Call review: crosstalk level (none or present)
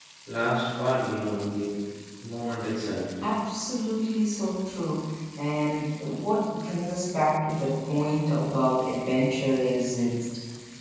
none